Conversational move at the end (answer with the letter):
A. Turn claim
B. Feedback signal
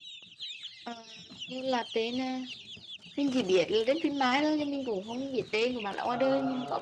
A